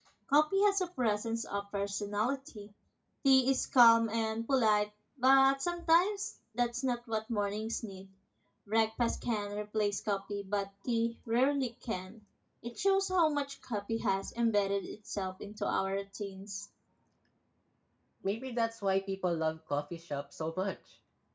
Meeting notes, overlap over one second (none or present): none